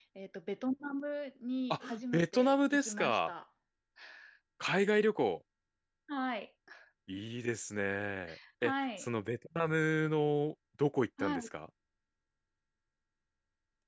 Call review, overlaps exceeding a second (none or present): present